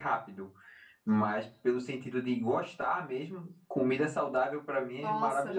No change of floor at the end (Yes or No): No